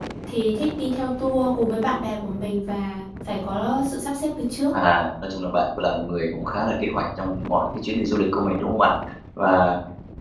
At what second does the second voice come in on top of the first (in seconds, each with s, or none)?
none